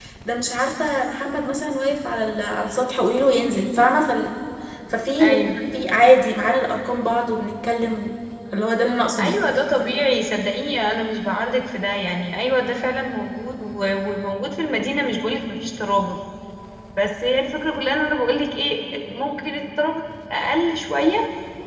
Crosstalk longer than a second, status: none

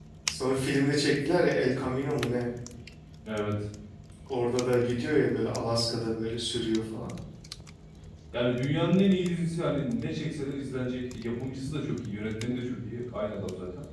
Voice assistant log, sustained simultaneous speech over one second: none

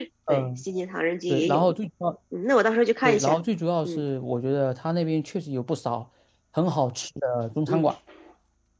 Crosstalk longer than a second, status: none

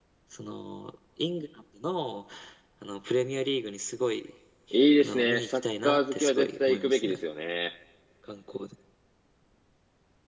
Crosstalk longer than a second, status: present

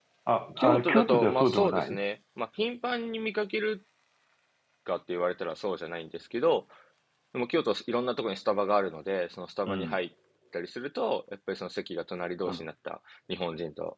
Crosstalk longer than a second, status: present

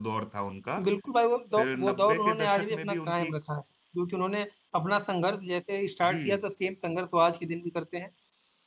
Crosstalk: present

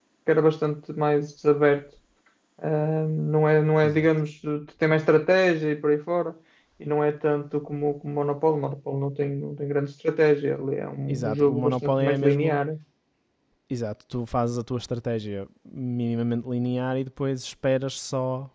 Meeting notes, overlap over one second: present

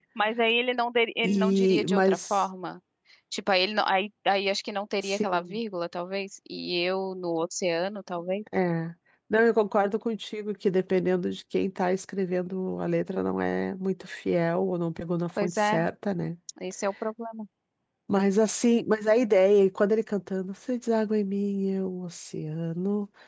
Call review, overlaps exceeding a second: present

